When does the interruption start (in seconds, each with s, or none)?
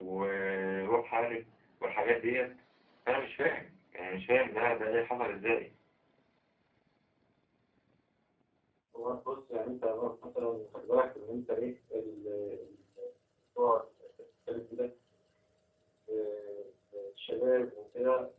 none